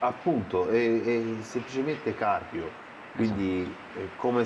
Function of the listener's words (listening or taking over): listening